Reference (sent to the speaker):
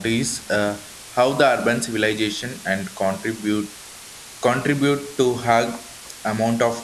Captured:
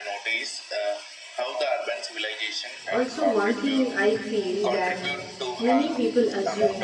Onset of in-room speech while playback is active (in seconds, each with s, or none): 2.9 s